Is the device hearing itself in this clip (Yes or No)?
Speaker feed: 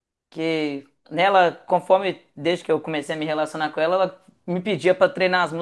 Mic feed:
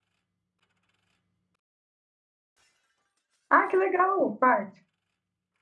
No